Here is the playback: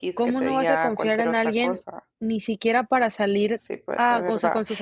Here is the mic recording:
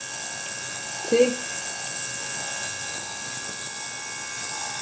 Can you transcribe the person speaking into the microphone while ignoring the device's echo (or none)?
Sí,